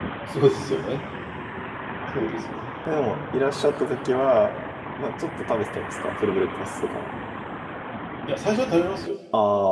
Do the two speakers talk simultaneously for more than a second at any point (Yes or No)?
No